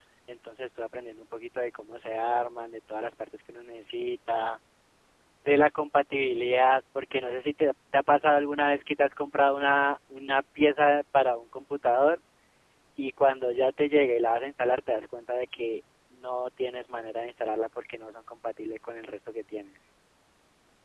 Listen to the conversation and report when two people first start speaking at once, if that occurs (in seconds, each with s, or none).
none